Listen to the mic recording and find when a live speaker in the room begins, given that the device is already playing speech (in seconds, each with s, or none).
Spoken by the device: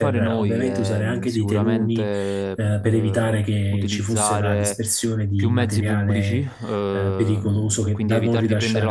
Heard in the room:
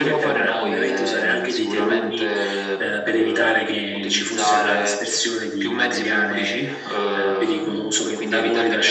none